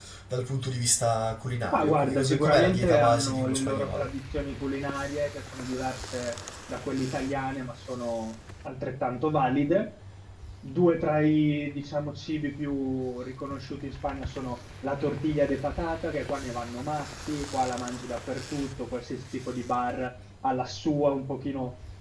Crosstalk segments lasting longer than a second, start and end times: 1.7-4.1

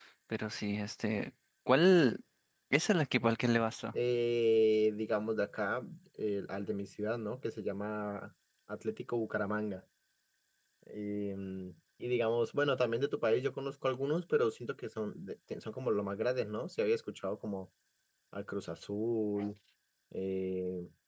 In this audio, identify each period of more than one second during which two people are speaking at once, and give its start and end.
none

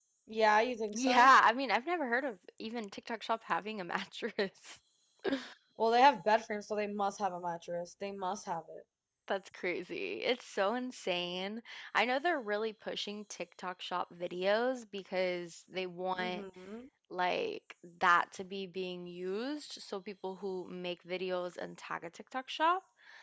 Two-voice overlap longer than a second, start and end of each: none

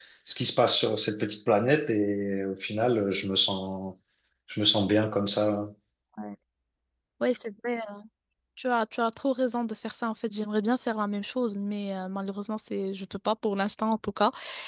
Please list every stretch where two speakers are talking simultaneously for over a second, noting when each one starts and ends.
none

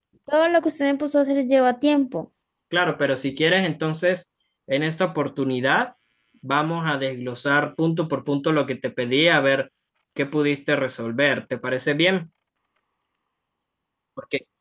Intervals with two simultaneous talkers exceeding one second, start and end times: none

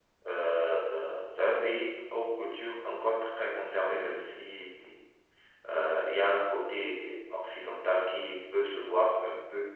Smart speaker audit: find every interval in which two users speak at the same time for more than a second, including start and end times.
none

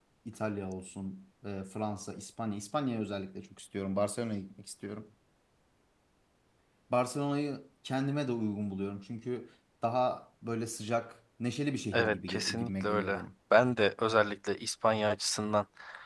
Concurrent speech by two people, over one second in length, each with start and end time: 11.9-13.2

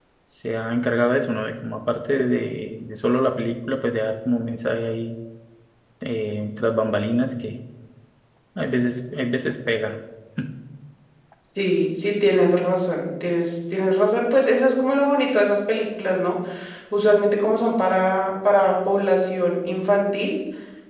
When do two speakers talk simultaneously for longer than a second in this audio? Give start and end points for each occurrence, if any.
none

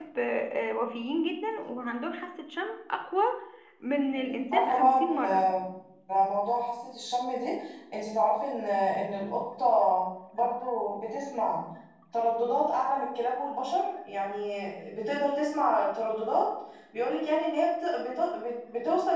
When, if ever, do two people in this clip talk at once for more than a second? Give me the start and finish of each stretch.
4.2-5.5

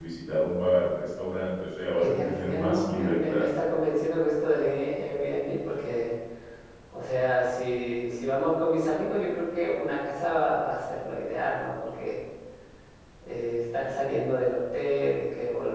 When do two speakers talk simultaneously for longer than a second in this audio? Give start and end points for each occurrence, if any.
2.0-3.4

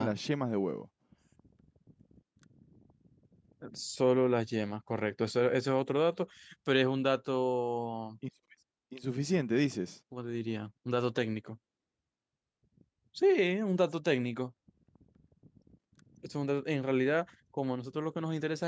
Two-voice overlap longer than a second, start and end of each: none

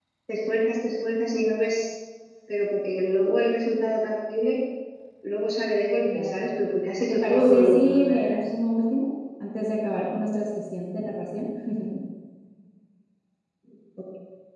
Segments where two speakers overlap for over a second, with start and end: 7.1-8.4

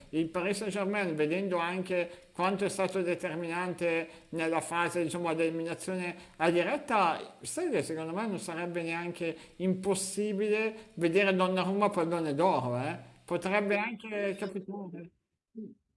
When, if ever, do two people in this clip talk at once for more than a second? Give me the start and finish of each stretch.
none

